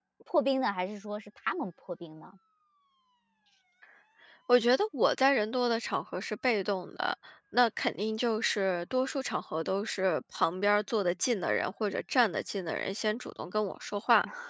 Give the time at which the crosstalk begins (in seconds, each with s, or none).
none